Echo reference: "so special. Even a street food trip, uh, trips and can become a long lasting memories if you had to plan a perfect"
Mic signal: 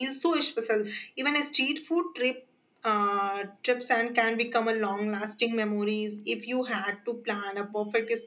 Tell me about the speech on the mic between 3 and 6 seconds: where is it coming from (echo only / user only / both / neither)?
echo only